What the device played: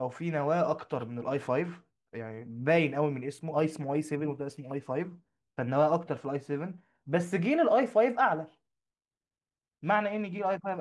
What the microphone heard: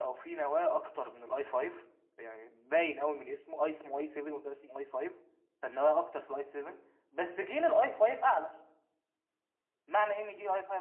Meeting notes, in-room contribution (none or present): none